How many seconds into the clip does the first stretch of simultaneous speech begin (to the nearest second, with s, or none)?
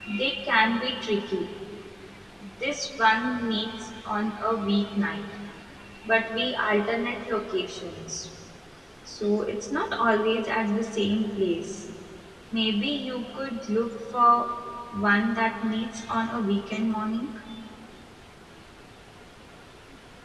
none